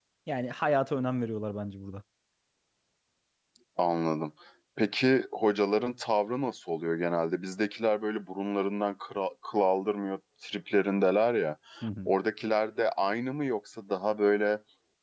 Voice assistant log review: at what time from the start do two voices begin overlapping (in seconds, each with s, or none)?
none